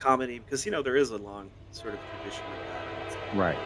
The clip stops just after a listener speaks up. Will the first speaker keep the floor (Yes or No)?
No